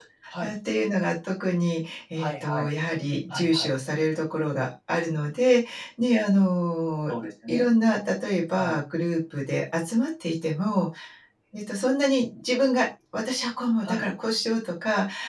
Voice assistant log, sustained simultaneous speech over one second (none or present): none